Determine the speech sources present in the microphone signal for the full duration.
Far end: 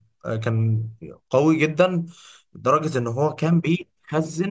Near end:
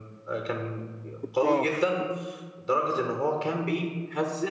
both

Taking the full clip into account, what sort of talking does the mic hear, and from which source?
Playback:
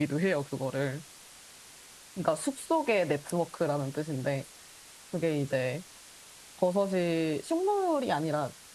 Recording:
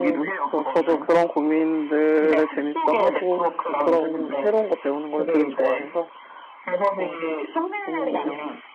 both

